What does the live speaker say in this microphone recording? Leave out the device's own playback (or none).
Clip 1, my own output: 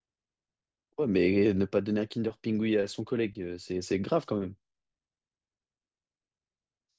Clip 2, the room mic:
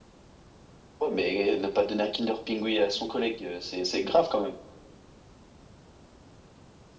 none